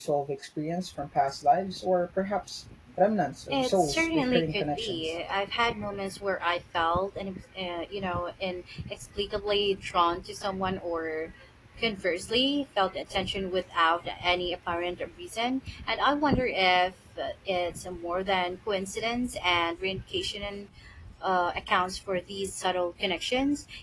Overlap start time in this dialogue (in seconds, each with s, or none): 3.4 s